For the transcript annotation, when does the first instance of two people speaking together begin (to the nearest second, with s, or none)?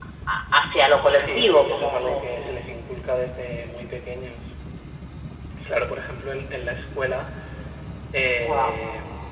1 s